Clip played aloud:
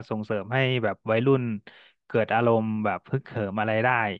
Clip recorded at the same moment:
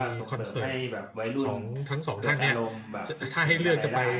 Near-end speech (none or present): present